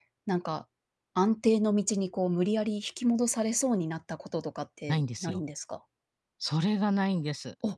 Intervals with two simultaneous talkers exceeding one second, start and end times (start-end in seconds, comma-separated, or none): none